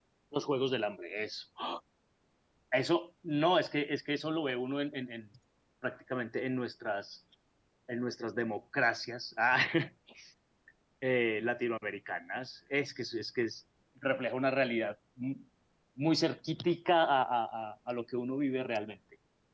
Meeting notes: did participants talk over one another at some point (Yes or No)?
No